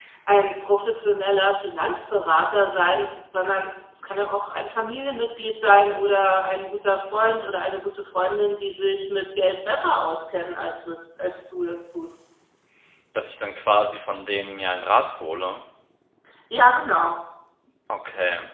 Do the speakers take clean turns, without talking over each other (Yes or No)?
Yes